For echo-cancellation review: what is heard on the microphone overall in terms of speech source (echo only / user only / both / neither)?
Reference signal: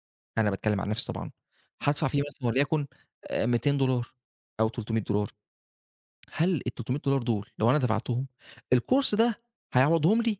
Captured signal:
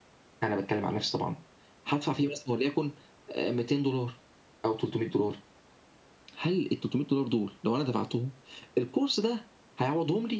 echo only